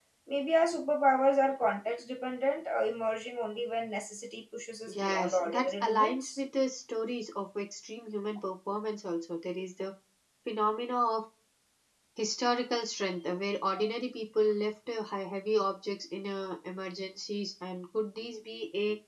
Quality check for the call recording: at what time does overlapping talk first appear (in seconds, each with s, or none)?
4.9 s